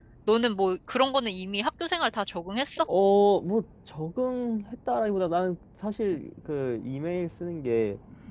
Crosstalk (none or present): none